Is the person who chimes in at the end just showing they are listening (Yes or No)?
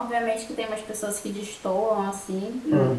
Yes